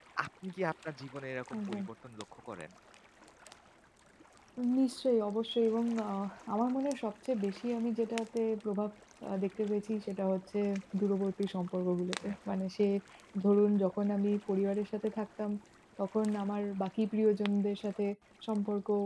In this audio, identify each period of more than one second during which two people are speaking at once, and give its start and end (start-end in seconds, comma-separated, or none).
none